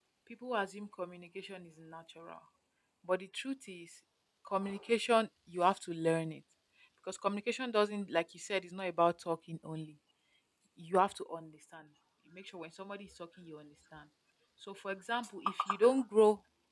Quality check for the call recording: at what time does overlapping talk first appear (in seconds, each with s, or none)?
none